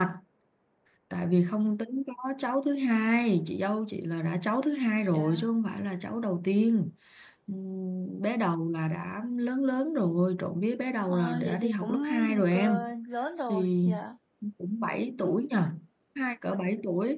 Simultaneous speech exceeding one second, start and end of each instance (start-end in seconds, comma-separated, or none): 11.1-12.9